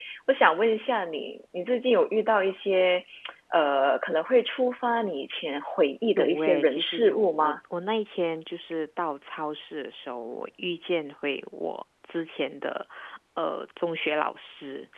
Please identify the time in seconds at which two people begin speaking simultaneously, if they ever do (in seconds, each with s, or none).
6.2 s